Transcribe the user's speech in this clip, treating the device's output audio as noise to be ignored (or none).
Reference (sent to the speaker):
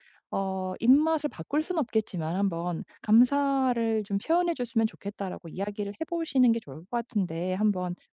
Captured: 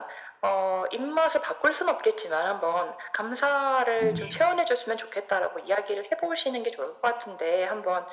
네.